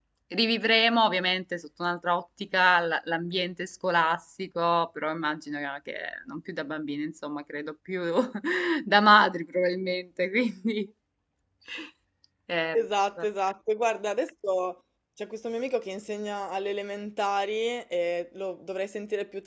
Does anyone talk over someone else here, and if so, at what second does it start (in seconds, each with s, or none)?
none